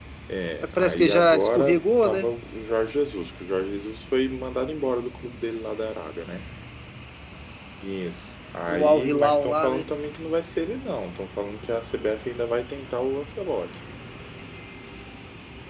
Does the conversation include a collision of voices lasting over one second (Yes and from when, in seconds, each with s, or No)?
Yes, from 0.8 s